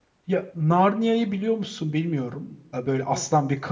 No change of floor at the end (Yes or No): Yes